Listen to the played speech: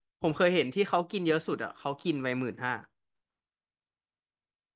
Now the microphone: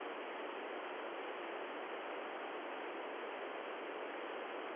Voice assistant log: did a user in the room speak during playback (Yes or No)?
No